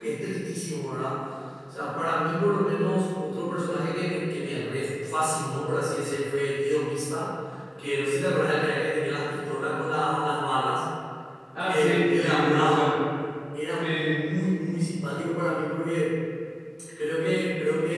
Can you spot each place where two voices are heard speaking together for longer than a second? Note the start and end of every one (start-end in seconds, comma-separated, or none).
11.6-12.9